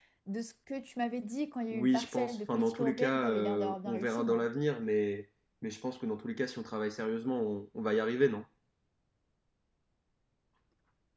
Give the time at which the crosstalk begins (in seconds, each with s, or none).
1.7 s